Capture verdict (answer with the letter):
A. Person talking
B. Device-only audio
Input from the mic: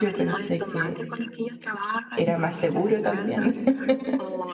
A